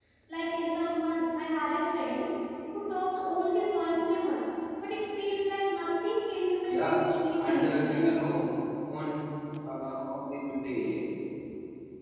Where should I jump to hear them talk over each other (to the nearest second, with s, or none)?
7 s